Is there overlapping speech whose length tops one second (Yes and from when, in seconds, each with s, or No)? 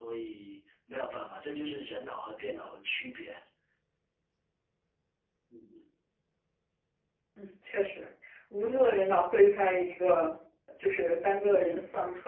No